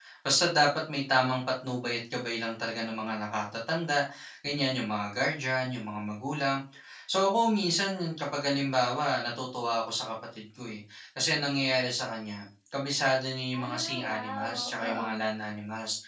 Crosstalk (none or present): present